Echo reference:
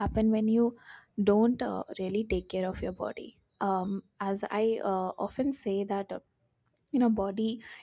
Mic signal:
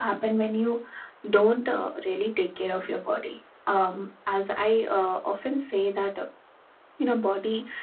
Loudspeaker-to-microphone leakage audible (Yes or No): Yes